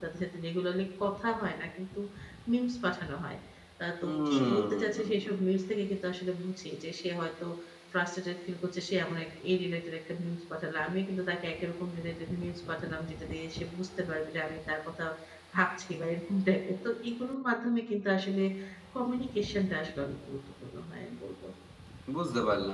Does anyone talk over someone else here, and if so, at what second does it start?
4 s

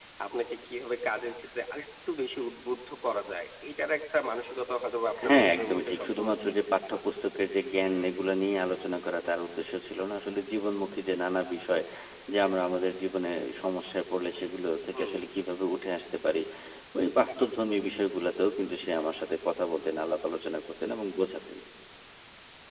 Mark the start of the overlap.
5 s

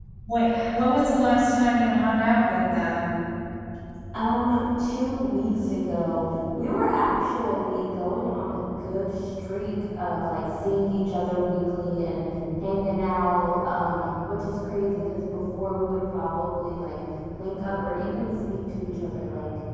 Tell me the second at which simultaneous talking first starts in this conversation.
none

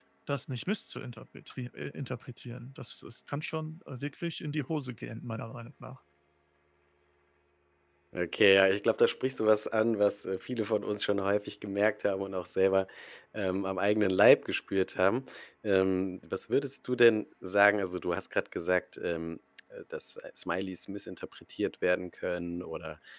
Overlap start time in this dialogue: none

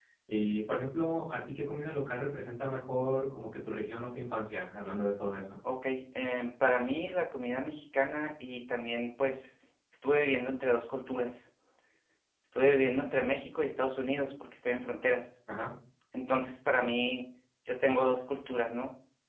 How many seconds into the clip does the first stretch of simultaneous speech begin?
none

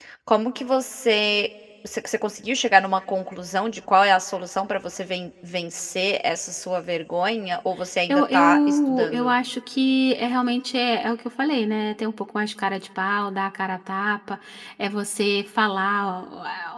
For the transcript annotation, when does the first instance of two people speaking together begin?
8 s

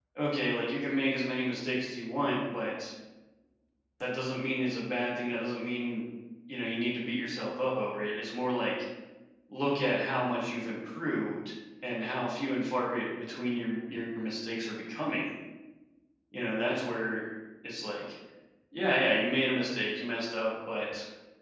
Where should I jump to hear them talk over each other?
none

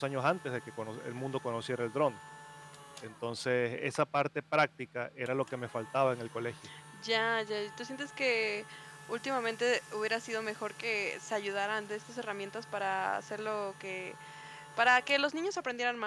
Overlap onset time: none

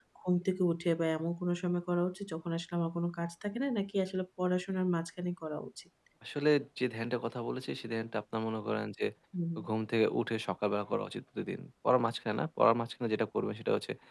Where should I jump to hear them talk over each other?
none

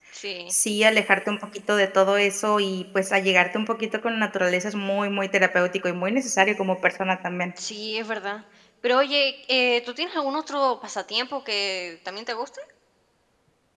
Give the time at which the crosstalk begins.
none

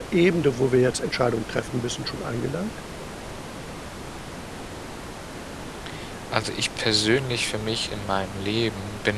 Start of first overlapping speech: none

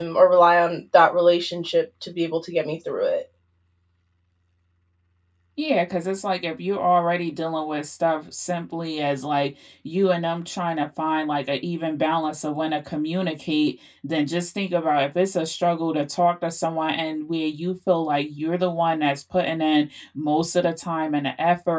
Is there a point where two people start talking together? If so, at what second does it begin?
none

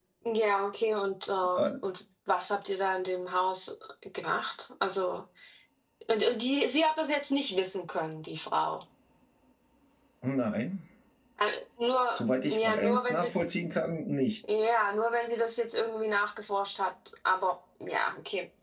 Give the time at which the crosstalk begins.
12 s

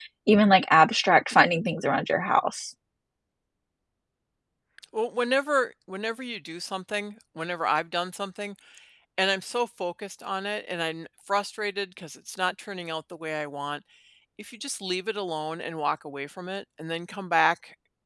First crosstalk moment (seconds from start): none

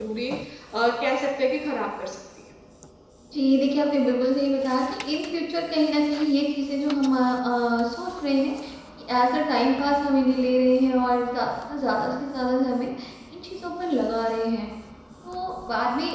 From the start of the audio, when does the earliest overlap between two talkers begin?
none

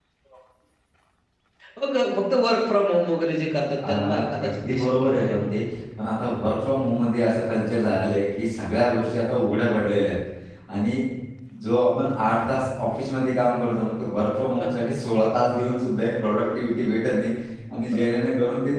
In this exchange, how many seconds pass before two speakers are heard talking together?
4 s

